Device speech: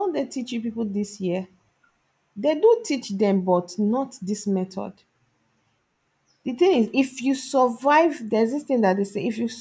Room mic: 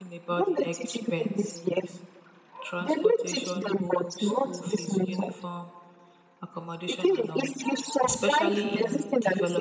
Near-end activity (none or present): present